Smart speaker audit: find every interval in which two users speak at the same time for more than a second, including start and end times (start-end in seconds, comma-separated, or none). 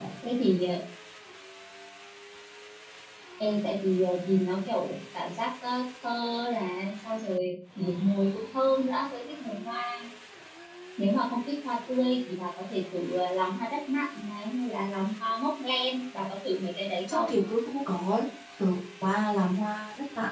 none